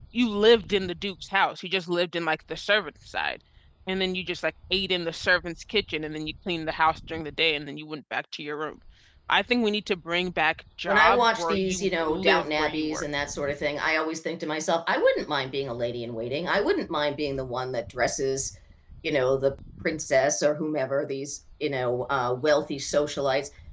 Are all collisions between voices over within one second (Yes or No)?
No